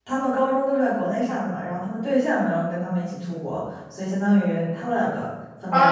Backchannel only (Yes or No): No